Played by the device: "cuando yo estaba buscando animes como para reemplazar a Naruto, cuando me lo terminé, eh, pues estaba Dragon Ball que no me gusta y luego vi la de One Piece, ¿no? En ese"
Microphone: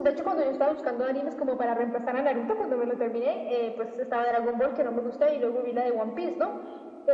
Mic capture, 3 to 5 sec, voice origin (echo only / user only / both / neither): echo only